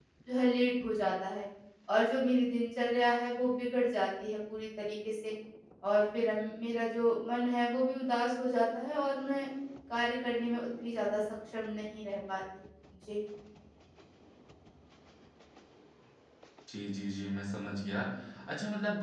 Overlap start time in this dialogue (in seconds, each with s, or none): none